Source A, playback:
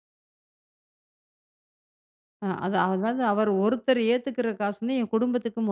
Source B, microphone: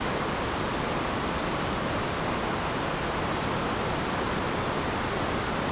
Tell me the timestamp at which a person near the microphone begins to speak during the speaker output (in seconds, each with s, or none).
none